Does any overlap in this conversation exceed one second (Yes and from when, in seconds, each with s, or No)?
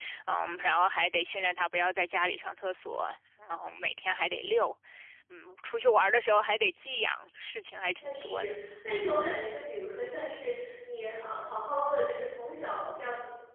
No